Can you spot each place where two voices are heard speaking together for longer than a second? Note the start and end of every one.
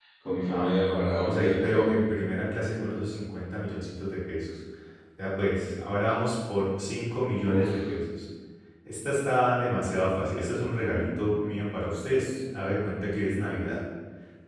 0.5-1.9

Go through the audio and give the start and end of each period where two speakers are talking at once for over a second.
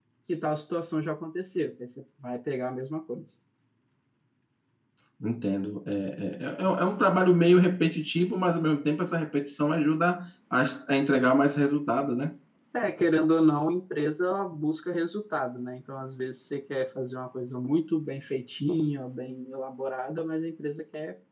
none

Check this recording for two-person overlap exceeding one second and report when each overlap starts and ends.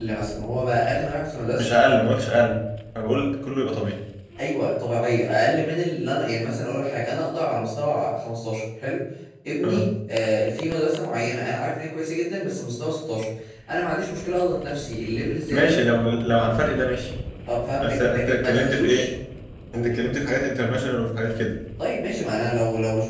17.8-19.1

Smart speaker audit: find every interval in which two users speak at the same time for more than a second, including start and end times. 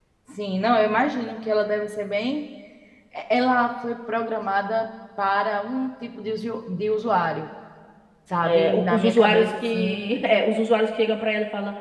8.4-10.2

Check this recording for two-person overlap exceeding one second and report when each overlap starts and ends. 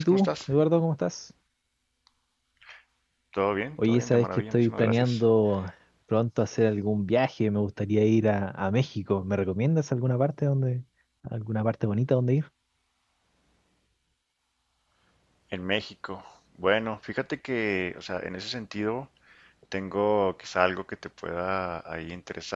3.9-5.2

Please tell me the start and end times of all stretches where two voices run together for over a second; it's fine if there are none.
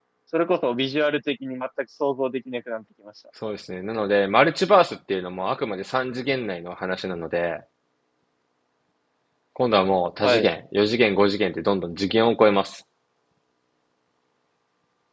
none

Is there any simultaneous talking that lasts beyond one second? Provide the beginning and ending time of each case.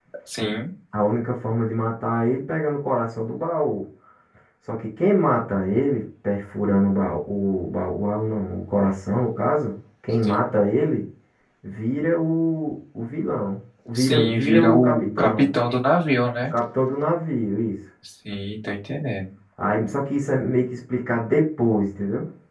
13.9-15.5

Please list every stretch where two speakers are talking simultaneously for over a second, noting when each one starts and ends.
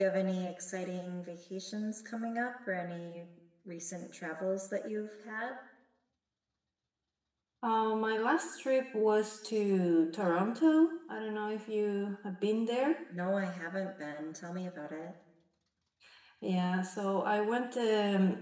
none

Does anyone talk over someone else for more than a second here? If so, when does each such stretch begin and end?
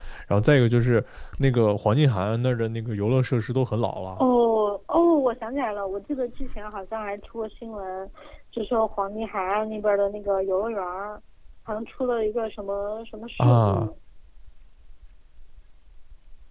none

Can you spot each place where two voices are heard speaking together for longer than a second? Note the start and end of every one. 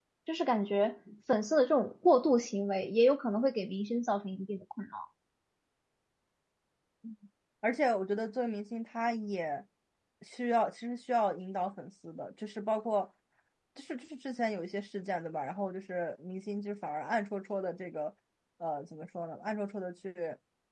none

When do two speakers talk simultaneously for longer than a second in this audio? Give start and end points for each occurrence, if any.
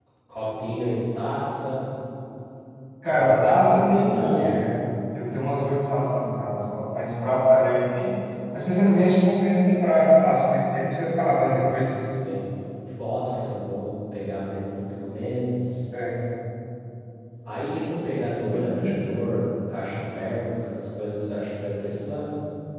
3.1-4.6

